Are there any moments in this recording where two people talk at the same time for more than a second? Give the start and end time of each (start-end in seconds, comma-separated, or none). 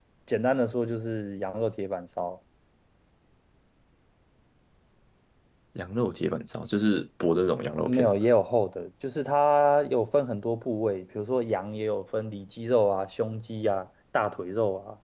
none